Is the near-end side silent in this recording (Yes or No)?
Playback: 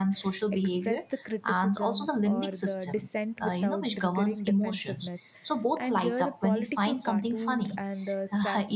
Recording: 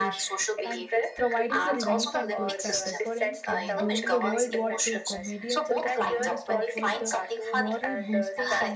No